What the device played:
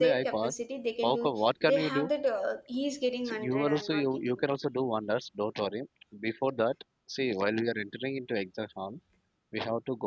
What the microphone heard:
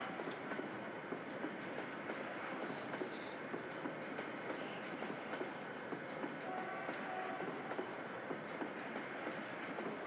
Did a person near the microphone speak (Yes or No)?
No